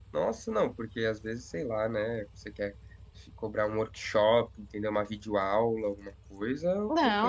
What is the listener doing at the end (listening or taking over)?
taking over